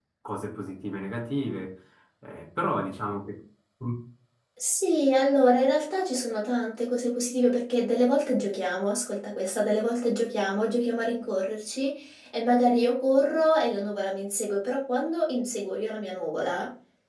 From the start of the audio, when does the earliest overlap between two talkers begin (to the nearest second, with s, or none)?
none